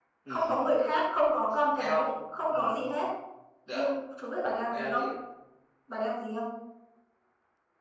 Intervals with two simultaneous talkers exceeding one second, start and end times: none

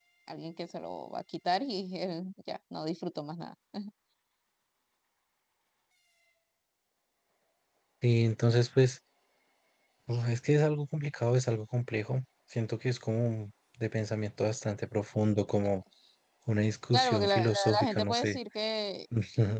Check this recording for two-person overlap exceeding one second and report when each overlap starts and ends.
16.9-18.4

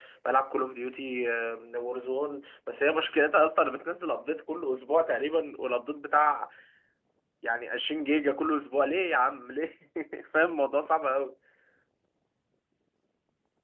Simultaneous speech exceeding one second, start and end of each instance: none

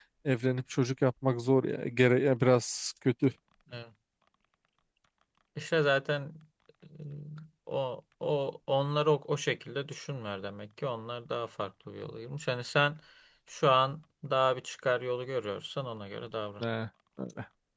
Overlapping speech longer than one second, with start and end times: none

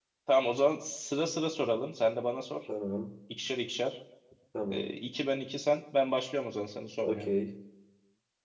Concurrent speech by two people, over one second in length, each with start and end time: none

